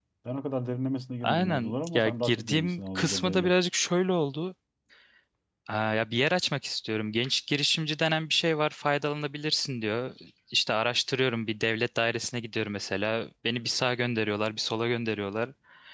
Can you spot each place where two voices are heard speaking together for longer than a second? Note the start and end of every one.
1.2-3.5

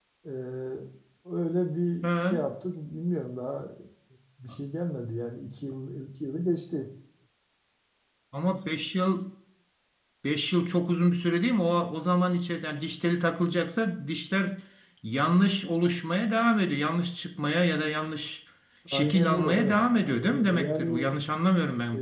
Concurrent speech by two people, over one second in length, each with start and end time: 18.9-21.1

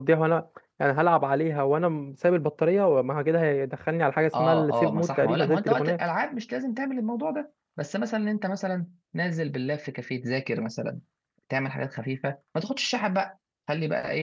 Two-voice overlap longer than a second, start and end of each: 4.3-6.0

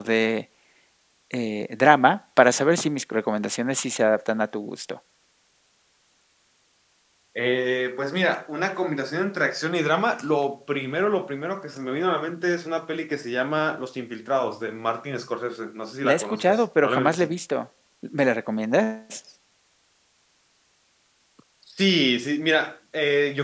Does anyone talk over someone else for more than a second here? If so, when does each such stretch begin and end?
16.0-17.3

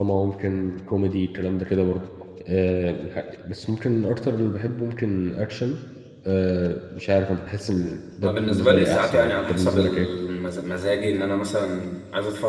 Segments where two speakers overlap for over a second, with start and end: 8.2-10.1

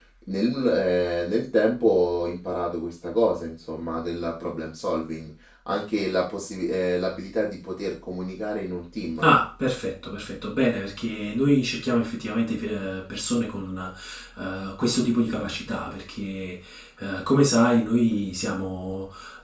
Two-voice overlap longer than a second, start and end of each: none

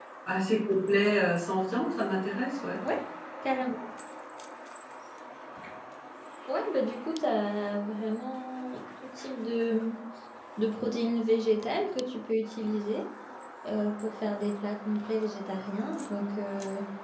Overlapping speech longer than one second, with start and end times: none

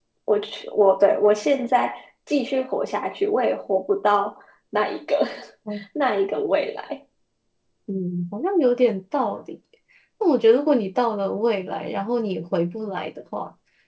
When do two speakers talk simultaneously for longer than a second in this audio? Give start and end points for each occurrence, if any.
none

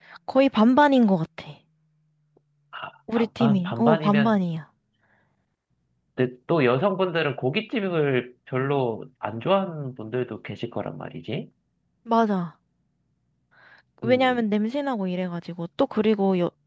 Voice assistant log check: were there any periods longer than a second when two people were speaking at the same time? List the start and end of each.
3.1-4.4

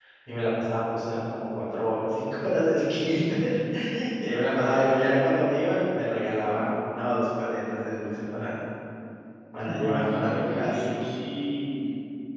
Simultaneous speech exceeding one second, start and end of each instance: 9.6-10.8

